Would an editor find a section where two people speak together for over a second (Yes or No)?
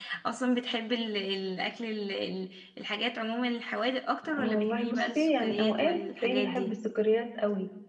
Yes